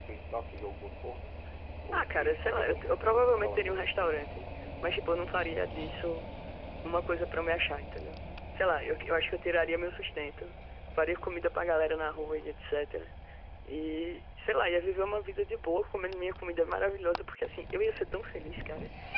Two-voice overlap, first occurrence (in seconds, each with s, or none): 1.9 s